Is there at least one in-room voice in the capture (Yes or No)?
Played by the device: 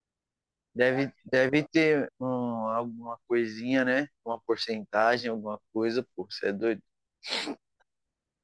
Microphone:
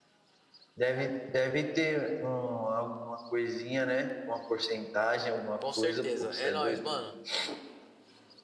Yes